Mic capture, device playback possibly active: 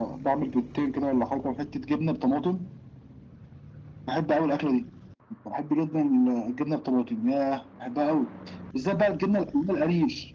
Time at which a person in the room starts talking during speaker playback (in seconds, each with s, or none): none